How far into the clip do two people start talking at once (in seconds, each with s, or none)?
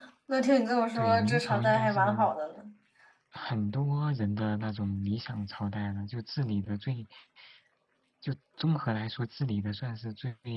0.9 s